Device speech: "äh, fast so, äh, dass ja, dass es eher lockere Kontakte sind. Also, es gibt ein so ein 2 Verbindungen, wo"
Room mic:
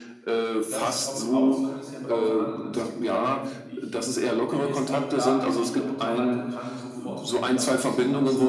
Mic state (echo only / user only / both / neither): both